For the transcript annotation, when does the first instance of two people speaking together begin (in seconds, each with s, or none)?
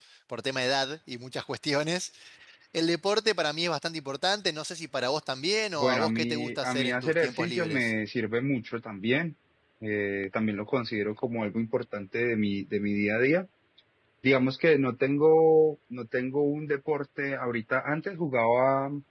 5.8 s